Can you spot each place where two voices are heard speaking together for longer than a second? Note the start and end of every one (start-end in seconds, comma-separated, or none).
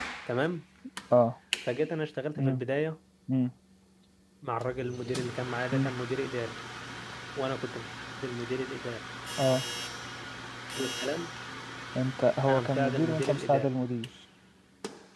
12.5-13.7